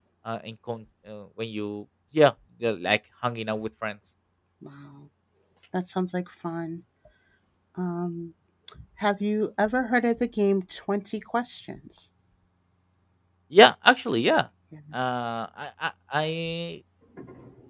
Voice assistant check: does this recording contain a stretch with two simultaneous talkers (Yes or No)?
No